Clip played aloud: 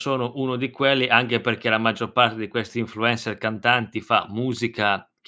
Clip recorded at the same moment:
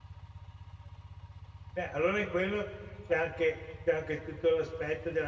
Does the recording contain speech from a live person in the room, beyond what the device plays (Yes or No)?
Yes